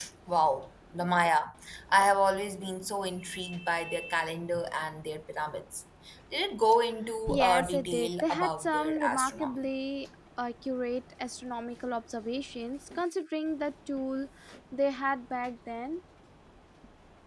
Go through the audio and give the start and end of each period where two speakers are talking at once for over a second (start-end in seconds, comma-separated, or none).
7.3-9.6